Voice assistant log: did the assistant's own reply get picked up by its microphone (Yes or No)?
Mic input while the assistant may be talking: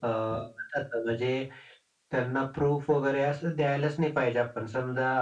Yes